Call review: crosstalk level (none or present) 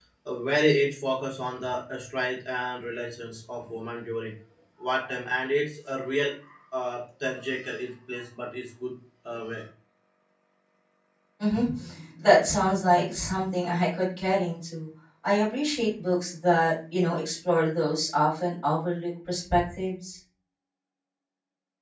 none